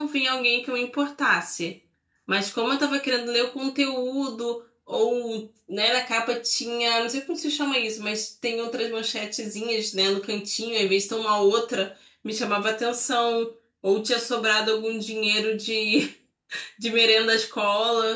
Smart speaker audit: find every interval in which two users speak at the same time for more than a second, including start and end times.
none

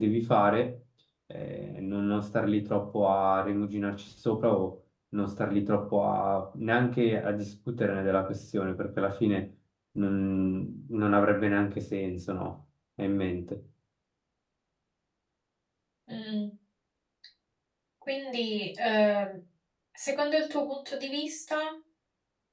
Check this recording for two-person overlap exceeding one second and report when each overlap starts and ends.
none

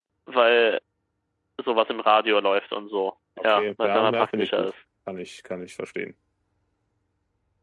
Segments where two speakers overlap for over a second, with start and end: 3.4-4.7

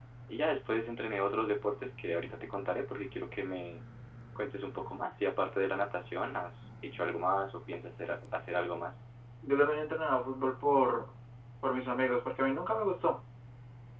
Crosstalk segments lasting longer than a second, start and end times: none

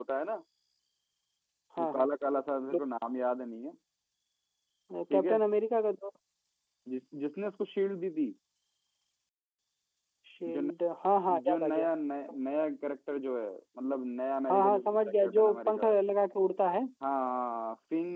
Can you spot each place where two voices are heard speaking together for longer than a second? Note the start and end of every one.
14.5-15.9

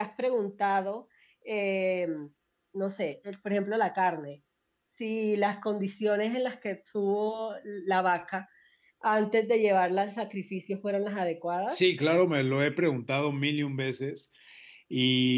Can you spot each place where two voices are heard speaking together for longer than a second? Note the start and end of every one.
none

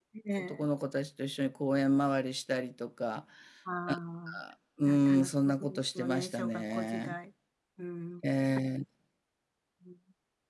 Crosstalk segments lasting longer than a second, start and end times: 4.9-7.2

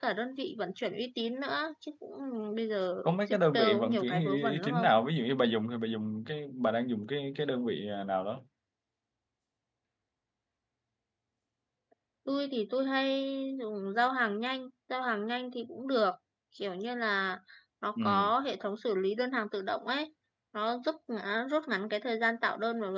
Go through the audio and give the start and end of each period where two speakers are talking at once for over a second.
3.0-4.9

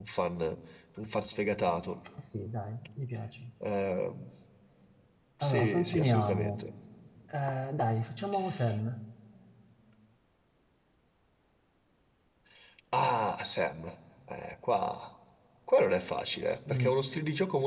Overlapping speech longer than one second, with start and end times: 5.4-6.6

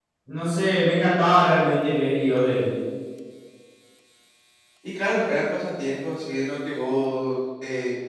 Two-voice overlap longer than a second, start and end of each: none

